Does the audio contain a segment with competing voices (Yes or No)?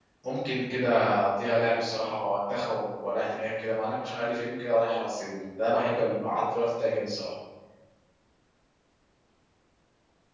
No